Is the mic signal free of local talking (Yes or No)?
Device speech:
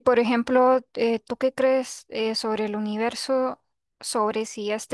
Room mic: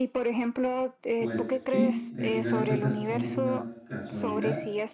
No